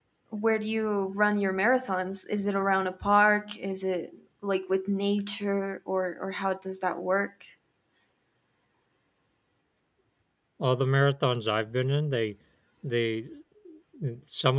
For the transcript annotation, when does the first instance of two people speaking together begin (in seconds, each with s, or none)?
none